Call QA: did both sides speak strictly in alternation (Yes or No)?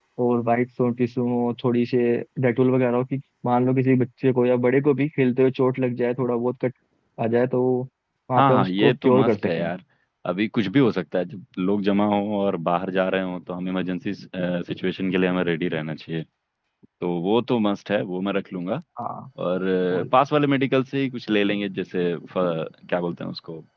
No